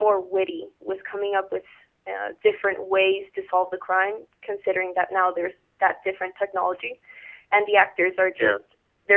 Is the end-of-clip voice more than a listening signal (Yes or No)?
No